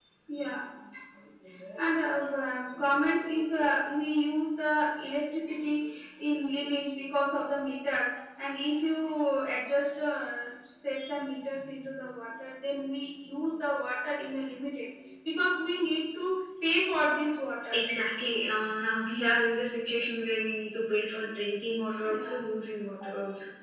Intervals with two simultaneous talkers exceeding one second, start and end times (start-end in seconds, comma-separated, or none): none